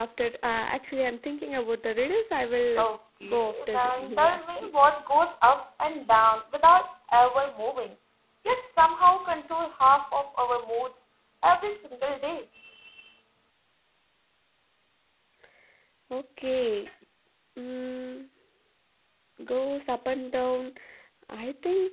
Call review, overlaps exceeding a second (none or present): present